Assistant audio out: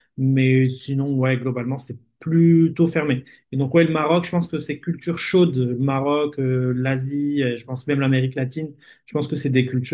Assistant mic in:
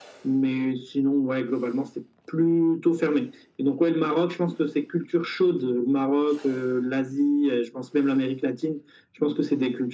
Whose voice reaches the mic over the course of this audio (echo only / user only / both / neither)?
echo only